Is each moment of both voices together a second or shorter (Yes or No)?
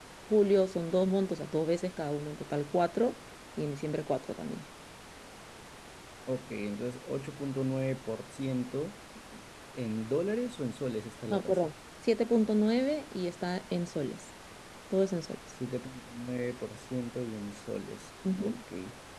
Yes